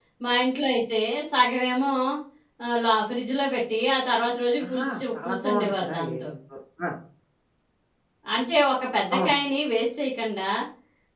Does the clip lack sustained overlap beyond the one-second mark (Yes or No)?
No